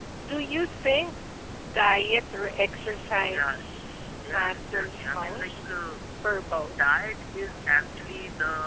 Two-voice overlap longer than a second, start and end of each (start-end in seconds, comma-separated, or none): 4.2-5.7